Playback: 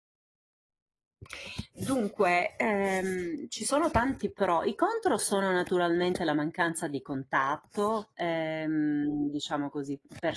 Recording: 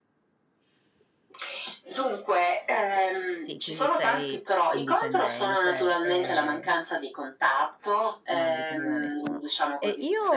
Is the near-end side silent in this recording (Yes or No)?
No